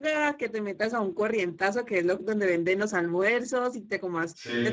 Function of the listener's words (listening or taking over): listening